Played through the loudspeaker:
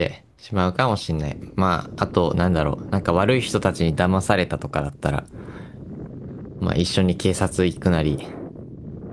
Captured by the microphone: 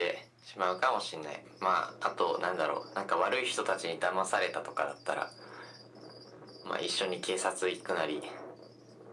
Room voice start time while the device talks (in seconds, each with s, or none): none